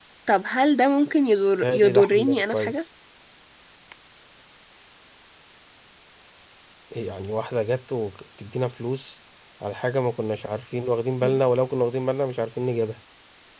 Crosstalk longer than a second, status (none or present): present